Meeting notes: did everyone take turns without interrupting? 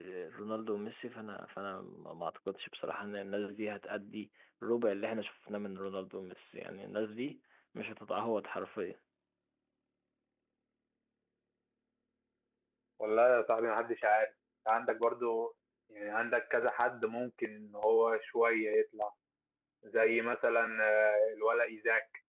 Yes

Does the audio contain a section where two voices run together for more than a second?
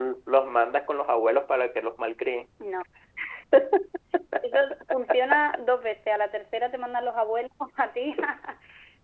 No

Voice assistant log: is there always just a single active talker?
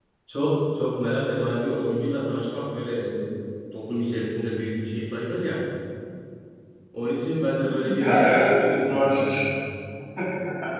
No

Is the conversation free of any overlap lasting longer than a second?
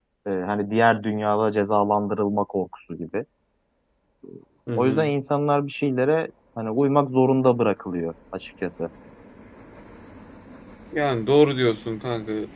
Yes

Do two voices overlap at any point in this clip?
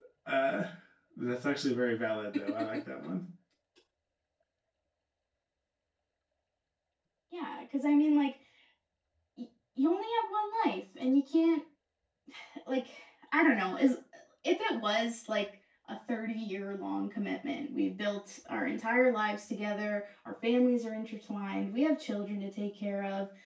No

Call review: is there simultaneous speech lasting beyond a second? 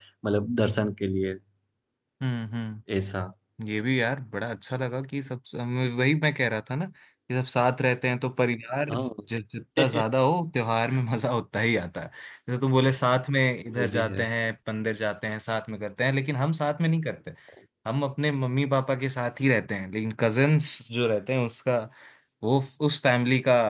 No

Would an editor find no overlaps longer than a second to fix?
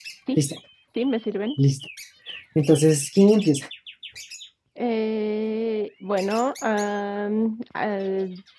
Yes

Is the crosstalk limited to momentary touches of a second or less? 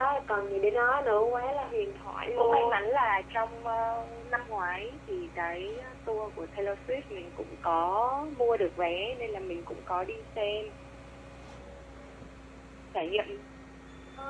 Yes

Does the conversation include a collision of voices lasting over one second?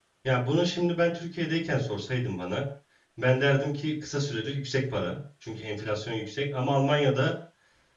No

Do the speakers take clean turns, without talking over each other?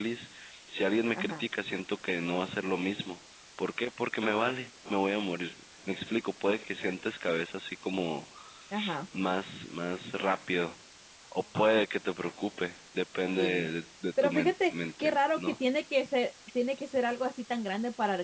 No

